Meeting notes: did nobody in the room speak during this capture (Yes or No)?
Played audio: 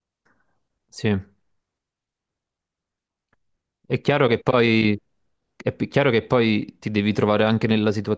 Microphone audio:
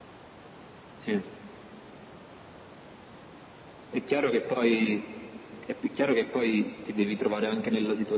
Yes